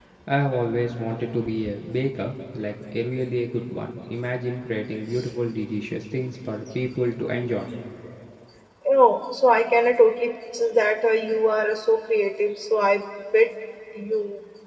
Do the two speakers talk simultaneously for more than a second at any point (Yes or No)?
No